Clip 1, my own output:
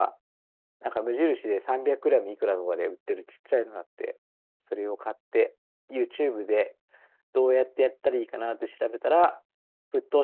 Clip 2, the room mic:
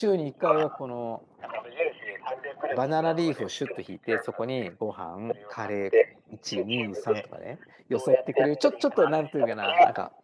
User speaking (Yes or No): Yes